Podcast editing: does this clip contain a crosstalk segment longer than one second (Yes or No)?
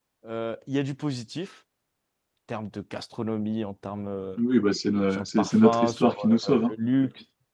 Yes